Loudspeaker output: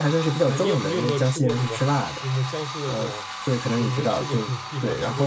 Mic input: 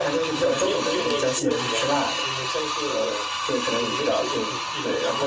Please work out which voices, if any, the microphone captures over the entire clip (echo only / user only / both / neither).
echo only